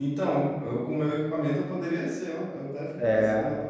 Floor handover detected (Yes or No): No